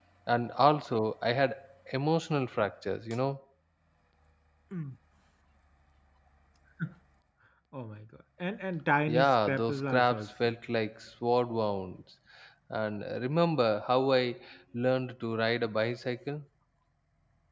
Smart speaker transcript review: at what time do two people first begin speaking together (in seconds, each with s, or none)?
9.1 s